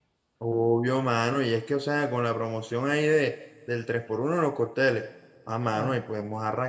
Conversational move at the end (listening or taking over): listening